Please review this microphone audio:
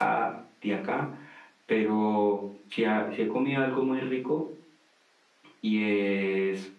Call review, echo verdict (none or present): none